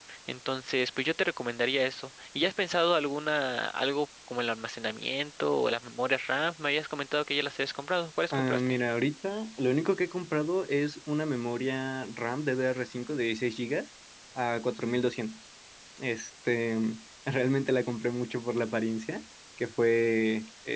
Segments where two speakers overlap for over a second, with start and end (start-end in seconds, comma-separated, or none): none